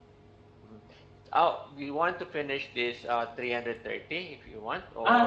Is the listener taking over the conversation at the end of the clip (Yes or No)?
Yes